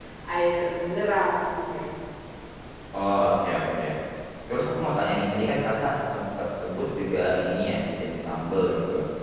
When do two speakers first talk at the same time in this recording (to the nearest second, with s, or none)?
none